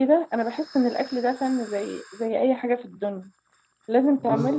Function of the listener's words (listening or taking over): listening